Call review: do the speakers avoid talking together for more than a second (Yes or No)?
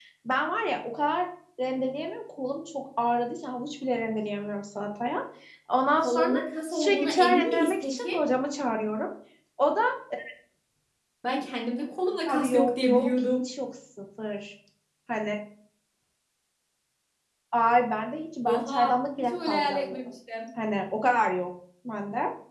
No